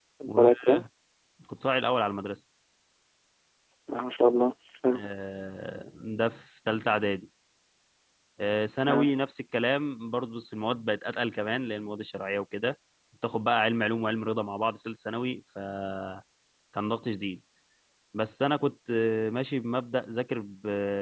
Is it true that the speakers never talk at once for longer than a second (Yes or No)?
Yes